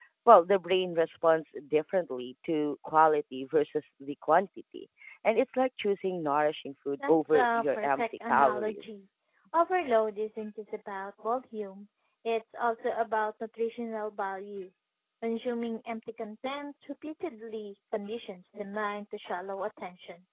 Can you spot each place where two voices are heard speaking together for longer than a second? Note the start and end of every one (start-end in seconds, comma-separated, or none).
7.1-8.9